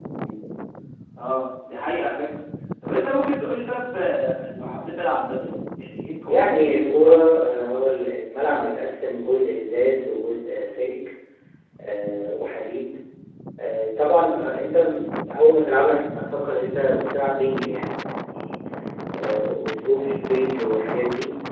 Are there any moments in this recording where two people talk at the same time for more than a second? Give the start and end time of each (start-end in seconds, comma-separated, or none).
6.3-8.1